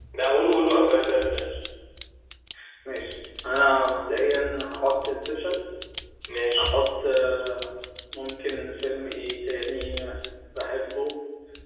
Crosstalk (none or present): none